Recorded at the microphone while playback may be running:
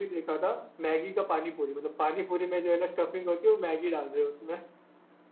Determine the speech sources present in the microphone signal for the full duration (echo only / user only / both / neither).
echo only